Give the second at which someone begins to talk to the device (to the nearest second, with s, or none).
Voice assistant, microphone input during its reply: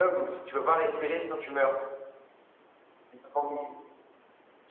none